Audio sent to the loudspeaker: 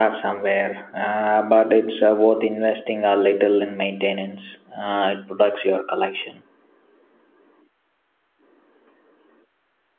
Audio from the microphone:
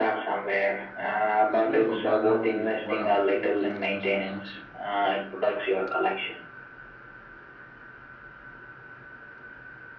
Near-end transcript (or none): It's great for background music while I'm walking or just relaxing.